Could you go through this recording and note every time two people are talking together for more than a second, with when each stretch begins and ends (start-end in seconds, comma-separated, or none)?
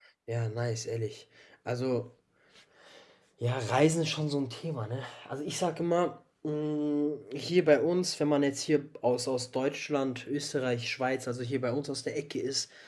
none